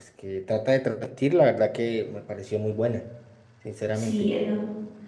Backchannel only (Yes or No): No